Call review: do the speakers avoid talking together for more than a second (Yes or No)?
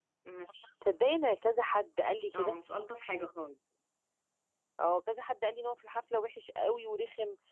Yes